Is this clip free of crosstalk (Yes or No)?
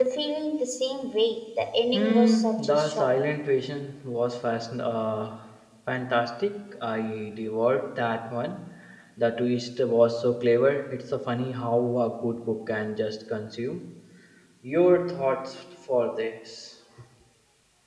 No